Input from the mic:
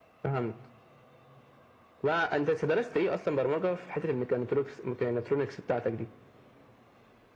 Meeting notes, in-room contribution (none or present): none